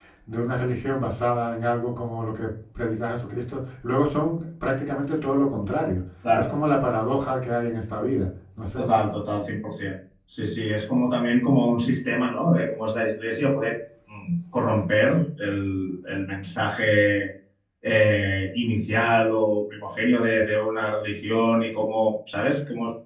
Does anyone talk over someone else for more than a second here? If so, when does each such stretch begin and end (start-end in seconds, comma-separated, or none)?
none